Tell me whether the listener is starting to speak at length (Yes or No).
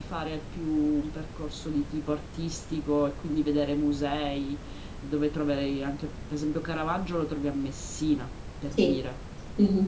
Yes